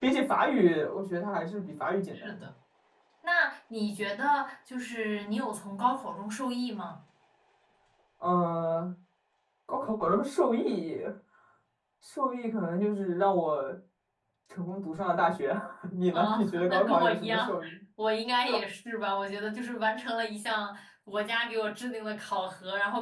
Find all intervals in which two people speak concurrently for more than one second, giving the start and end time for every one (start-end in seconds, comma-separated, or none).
16.1-17.7